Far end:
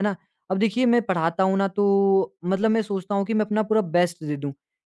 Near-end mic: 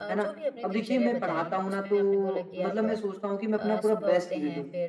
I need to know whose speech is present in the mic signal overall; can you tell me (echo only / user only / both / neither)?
both